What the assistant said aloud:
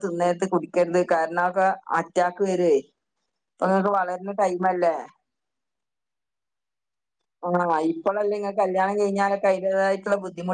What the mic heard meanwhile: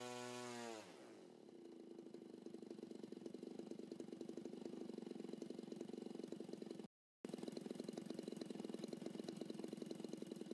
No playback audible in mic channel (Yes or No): Yes